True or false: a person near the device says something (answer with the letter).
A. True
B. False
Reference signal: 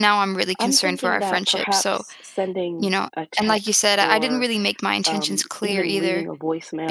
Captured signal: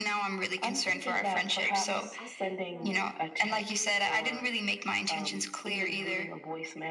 A